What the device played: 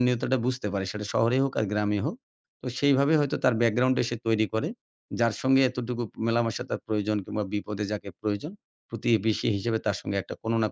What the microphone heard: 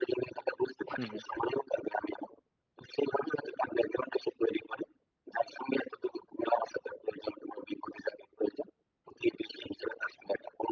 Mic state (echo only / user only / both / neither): both